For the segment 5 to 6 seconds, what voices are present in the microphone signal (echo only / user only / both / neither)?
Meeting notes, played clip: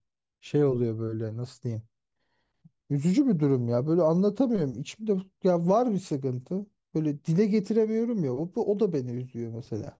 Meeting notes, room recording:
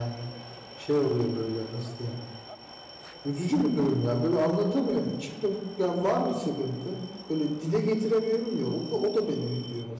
echo only